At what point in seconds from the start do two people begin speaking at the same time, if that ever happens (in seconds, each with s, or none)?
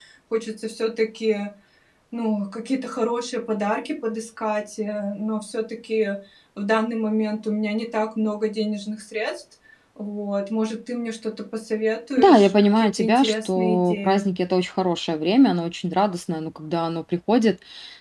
12.2 s